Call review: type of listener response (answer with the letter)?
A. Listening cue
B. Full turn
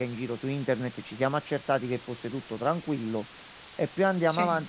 A